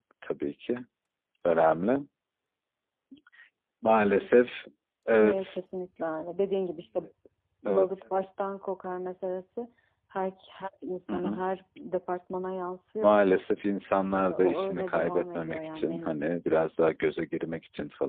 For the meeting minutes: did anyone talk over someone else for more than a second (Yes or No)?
Yes